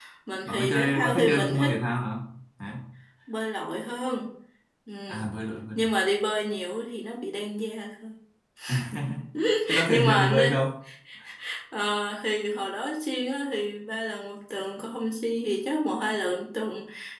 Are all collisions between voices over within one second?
No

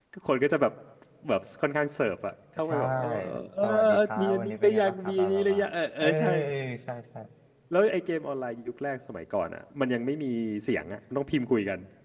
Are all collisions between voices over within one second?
No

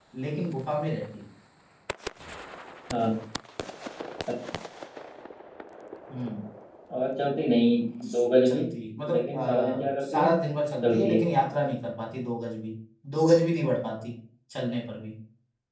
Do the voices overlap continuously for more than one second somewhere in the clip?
Yes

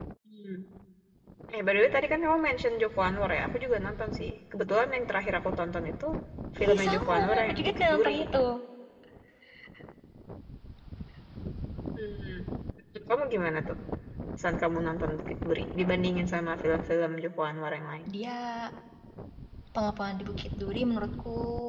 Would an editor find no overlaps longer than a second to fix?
No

